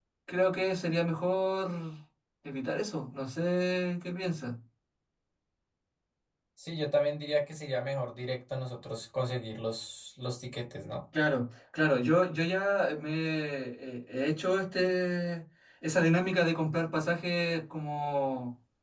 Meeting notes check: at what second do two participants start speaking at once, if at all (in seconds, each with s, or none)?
none